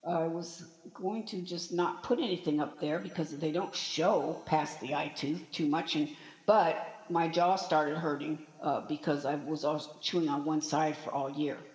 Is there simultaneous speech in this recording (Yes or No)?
No